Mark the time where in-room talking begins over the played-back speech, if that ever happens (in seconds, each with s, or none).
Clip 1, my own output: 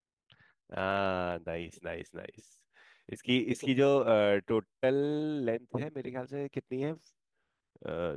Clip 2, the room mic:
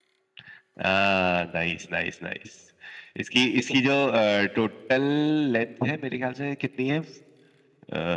none